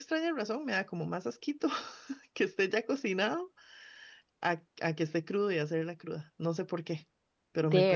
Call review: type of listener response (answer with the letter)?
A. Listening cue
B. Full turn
A